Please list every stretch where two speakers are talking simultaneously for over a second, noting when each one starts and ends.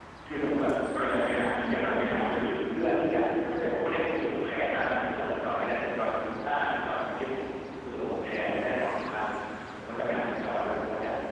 0.9-2.5

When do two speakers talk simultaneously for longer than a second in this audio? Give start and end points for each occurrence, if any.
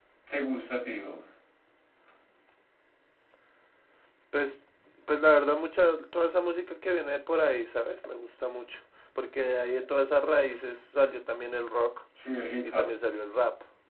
none

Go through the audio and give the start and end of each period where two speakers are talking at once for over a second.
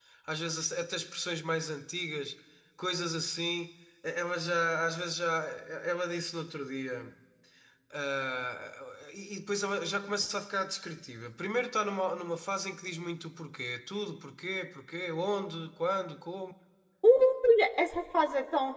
none

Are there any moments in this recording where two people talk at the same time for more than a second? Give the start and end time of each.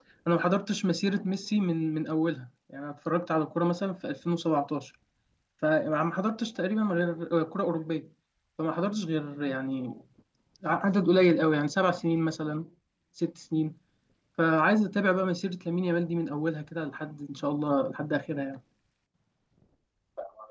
none

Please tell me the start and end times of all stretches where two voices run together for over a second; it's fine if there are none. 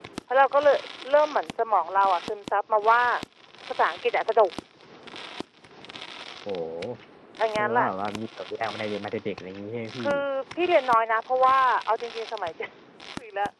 none

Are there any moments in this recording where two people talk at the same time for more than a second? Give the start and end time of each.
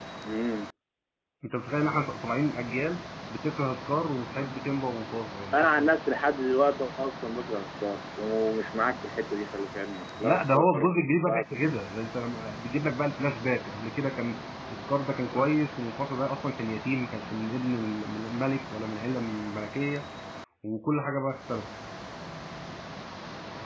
10.2-11.4

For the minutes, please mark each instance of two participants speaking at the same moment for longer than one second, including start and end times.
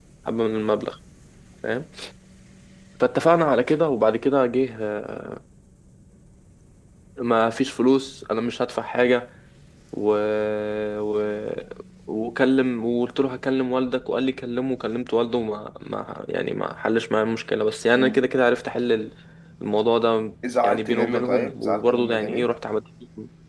20.6-22.5

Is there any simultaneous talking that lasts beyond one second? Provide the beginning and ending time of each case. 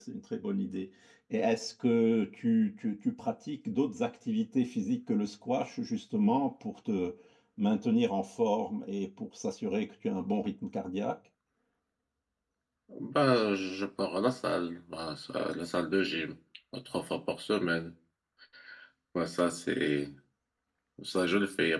none

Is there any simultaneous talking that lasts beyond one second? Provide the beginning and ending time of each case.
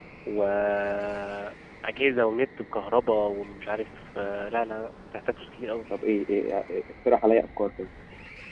none

